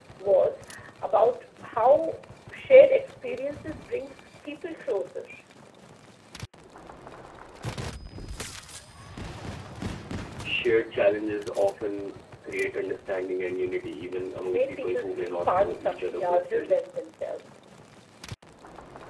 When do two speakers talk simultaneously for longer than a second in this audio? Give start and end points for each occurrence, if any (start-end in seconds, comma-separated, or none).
14.4-16.8